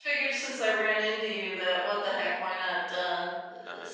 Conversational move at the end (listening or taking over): listening